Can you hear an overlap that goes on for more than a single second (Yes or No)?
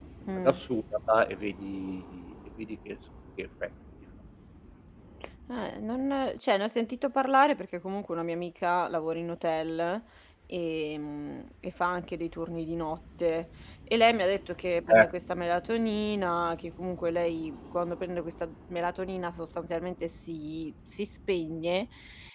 No